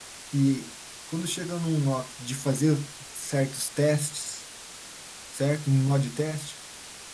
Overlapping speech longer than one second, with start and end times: none

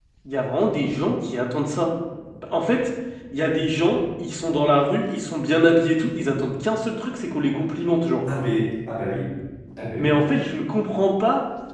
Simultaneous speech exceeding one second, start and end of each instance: none

